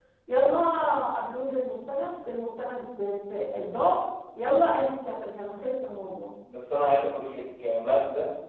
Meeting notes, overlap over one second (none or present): none